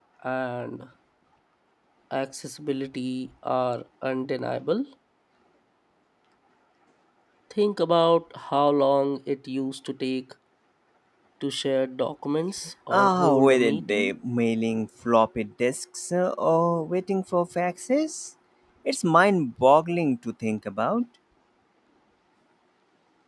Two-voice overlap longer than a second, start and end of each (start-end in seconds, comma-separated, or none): 12.9-14.1